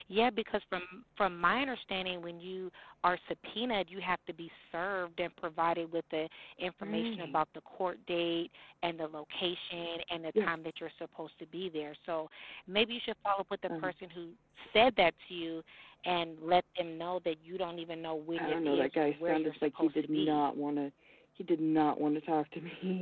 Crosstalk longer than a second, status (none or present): present